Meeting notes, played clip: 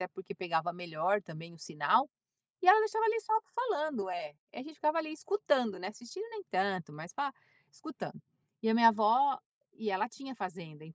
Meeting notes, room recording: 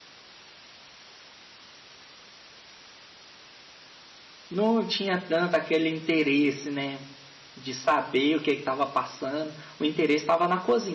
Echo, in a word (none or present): none